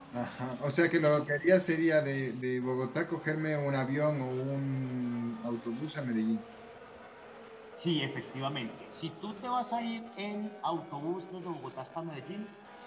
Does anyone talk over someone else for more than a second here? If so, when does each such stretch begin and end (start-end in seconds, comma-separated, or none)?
none